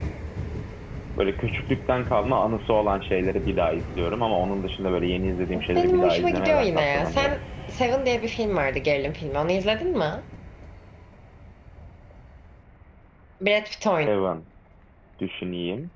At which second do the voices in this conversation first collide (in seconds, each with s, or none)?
5.5 s